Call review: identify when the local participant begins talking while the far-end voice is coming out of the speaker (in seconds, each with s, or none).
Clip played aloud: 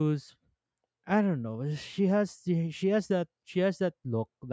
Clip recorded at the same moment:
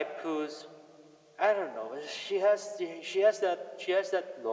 none